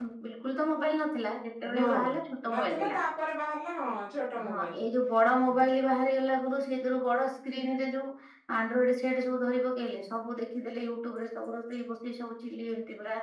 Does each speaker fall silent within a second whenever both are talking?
Yes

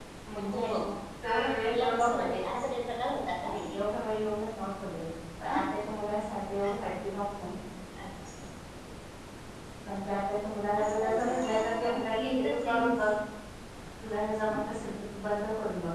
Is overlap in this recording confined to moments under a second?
No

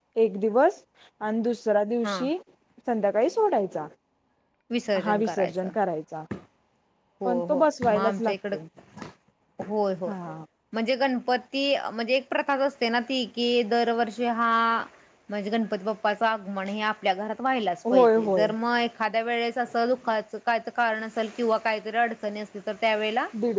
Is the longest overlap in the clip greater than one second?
Yes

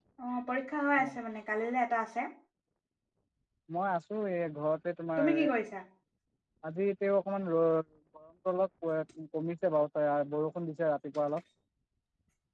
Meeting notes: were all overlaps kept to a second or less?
Yes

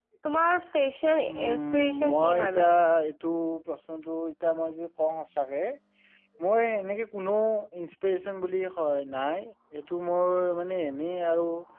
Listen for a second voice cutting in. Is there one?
Yes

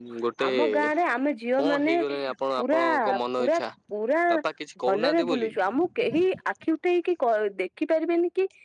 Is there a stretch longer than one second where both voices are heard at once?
Yes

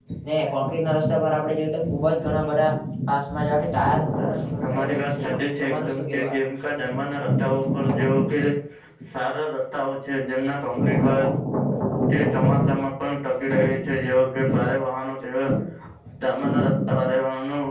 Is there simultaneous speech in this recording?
Yes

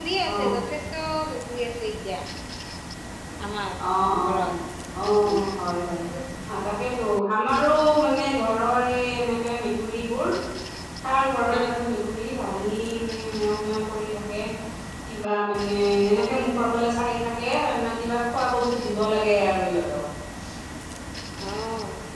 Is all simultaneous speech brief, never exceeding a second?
Yes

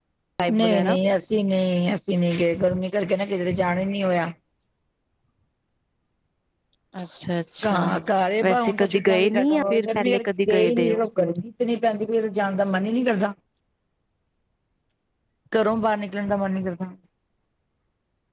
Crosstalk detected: Yes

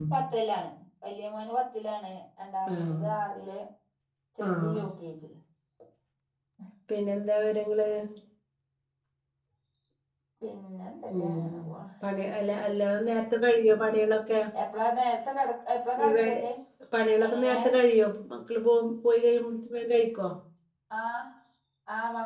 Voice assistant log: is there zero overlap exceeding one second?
Yes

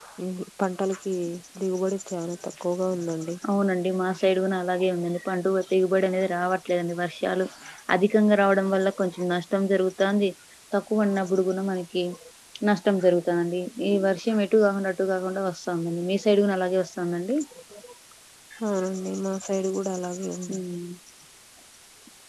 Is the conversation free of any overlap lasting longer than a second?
Yes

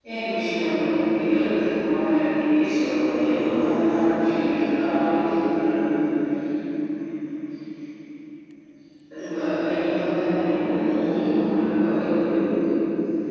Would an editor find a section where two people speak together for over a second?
Yes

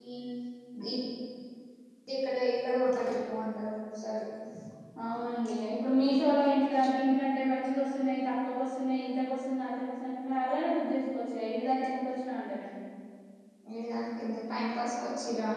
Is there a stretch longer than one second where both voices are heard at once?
No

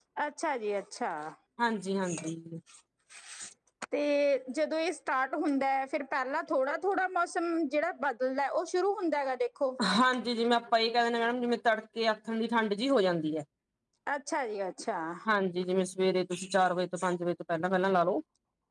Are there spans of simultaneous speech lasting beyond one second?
No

